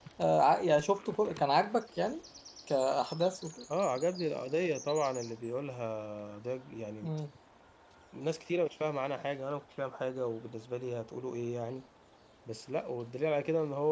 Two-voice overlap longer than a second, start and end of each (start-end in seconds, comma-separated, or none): none